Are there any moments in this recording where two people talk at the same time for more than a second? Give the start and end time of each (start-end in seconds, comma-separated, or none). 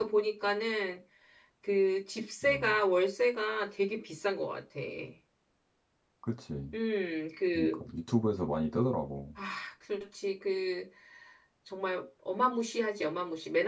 none